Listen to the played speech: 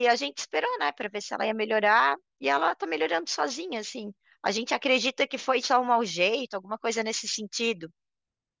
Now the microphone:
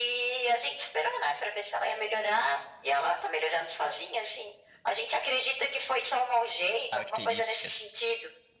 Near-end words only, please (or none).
Características.